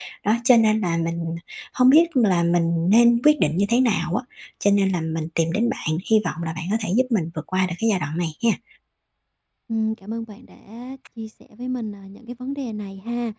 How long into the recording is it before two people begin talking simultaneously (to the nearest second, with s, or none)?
none